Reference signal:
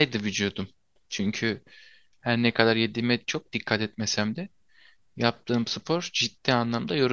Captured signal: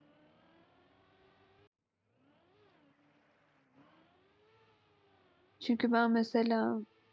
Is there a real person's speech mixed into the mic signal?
Yes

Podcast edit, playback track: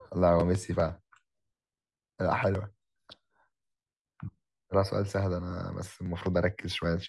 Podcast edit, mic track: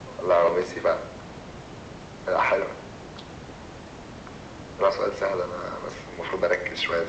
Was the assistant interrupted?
No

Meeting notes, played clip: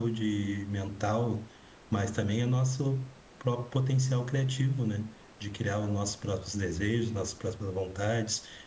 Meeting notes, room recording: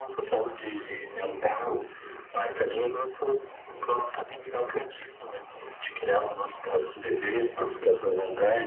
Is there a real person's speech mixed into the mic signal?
No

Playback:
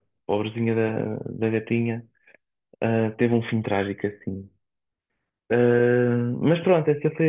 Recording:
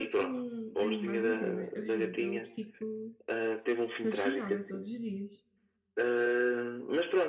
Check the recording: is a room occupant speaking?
Yes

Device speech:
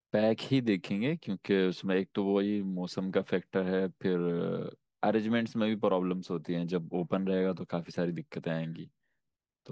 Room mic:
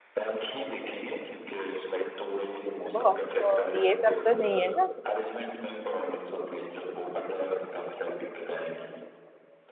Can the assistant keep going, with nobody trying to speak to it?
No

